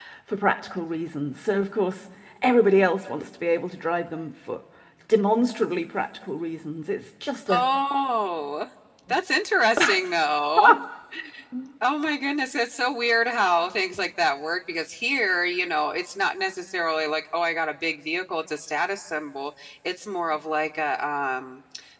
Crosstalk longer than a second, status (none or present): none